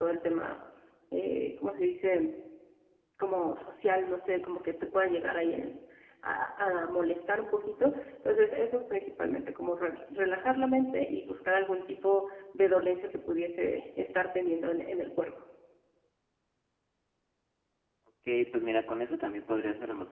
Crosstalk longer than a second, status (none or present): none